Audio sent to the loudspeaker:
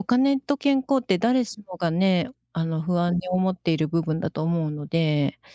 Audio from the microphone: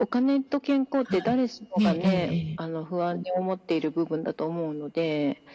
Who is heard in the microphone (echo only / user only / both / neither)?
both